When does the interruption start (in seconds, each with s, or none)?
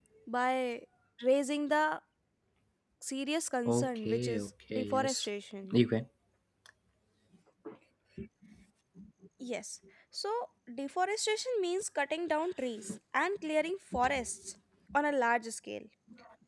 3.6 s